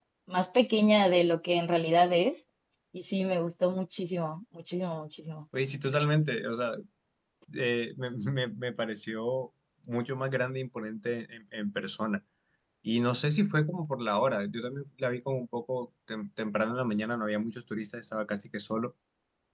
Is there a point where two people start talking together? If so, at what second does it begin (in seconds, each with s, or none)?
none